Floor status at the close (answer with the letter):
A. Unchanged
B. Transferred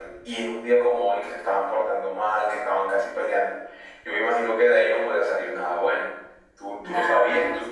A